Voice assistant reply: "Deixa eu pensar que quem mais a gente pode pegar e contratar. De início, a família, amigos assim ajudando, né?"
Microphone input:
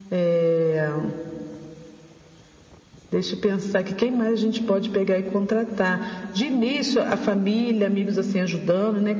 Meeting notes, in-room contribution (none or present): none